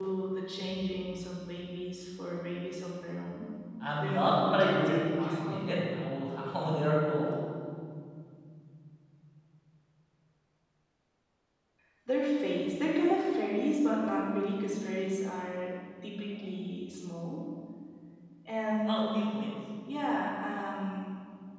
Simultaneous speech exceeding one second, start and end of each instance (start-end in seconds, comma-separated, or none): 4.0-5.6